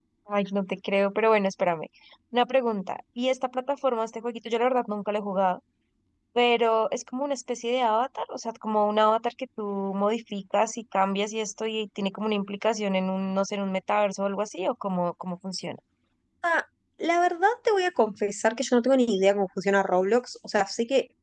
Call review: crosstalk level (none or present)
none